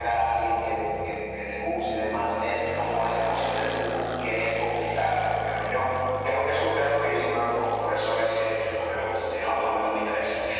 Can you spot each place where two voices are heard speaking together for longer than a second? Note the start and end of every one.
none

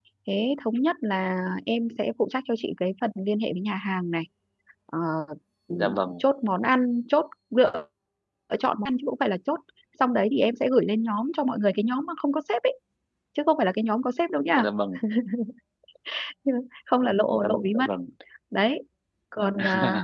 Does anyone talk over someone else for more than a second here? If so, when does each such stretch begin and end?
none

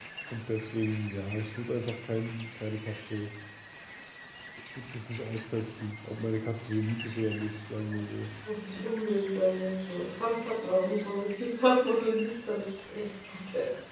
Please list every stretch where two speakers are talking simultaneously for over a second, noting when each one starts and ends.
none

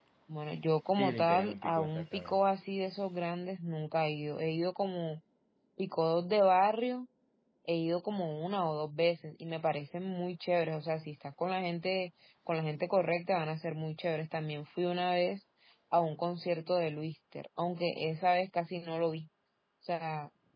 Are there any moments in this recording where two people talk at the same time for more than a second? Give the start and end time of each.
0.9-2.4

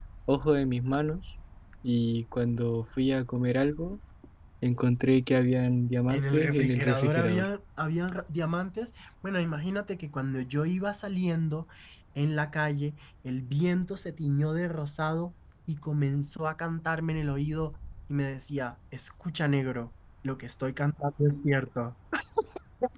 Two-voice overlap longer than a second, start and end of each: 6.1-7.5

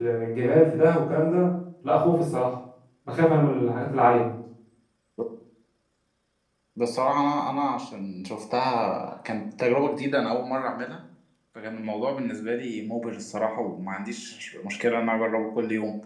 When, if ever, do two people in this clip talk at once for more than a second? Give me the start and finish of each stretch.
none

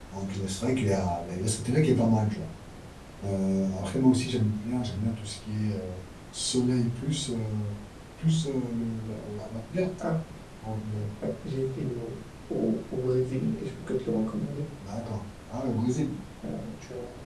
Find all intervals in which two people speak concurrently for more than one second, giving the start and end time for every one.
none

